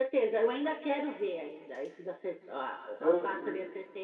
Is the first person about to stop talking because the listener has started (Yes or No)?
No